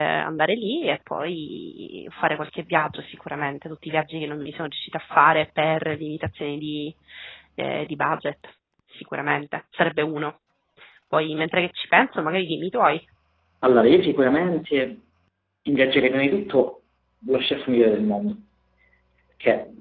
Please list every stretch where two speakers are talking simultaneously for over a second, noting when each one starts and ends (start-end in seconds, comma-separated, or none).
none